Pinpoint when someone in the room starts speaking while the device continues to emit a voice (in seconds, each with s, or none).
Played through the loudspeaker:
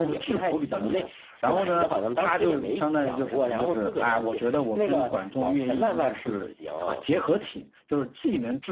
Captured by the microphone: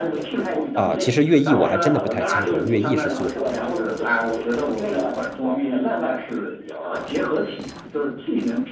0.7 s